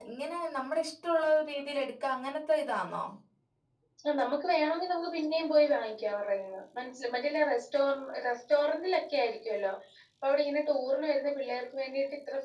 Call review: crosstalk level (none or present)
none